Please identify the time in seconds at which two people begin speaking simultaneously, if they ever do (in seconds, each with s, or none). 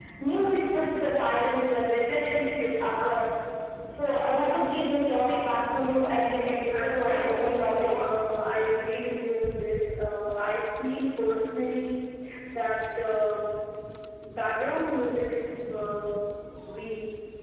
6.7 s